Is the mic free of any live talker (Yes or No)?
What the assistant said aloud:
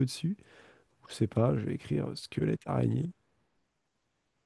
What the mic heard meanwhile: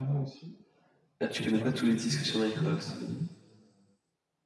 No